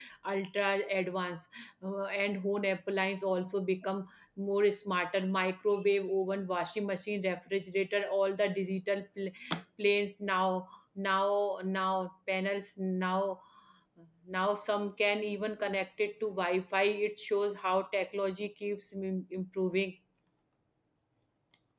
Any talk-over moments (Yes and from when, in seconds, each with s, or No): No